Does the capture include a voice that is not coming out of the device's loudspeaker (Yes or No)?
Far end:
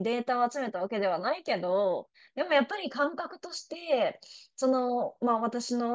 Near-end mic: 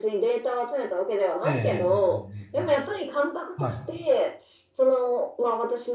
Yes